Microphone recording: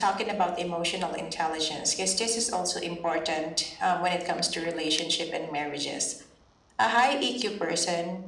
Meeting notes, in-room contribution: none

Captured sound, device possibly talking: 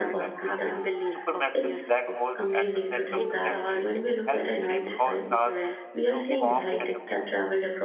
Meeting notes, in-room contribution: present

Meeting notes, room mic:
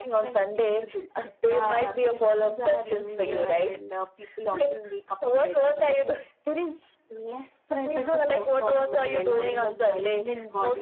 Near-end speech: none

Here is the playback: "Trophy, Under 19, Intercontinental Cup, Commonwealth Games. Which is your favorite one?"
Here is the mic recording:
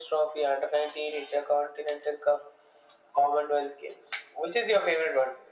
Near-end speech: none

